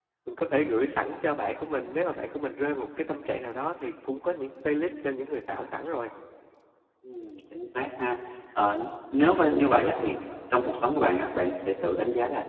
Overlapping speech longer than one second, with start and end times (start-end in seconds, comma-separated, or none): none